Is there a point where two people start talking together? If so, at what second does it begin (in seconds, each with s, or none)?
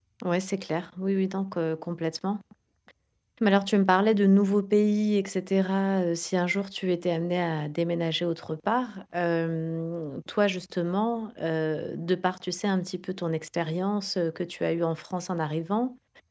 none